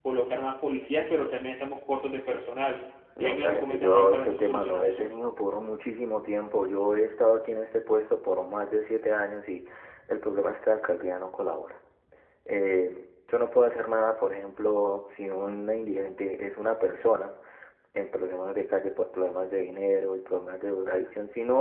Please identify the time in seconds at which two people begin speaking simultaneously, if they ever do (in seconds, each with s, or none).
3.1 s